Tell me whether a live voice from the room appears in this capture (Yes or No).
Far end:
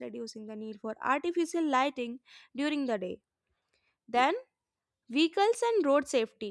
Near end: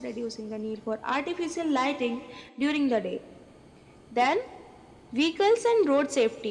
No